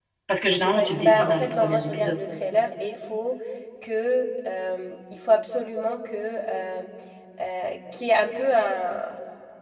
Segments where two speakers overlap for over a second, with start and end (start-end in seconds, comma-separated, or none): 0.7-2.2